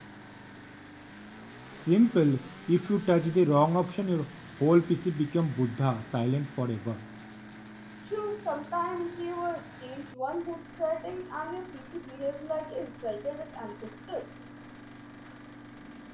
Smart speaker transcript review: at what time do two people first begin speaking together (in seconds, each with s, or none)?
none